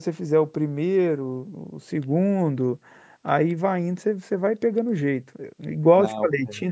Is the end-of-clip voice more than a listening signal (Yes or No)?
No